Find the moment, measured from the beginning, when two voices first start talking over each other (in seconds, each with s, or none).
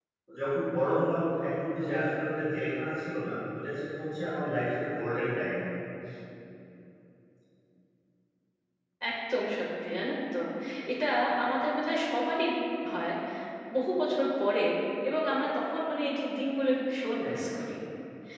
none